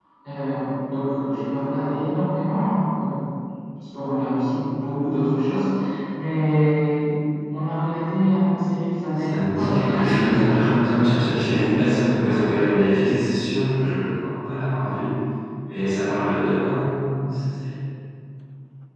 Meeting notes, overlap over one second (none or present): present